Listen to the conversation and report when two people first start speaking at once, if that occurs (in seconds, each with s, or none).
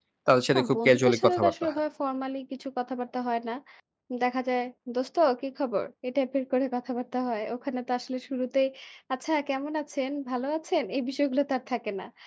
0.5 s